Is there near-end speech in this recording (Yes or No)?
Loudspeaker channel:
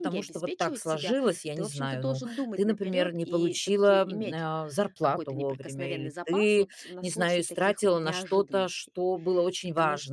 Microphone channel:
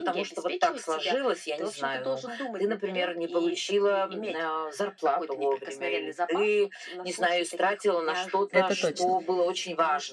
Yes